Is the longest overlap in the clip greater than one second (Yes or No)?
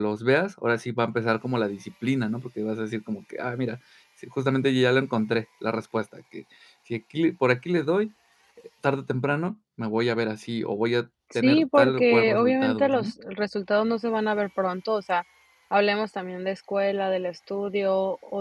Yes